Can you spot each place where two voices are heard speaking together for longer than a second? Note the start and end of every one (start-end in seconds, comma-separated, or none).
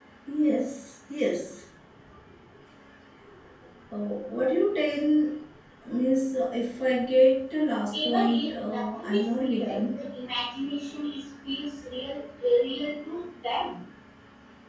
7.9-10.0